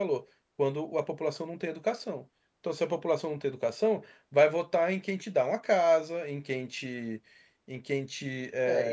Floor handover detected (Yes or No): Yes